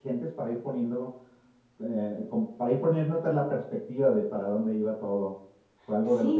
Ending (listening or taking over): listening